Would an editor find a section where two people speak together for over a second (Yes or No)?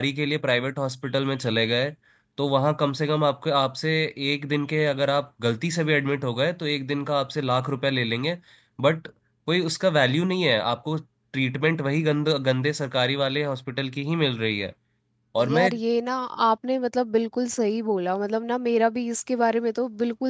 No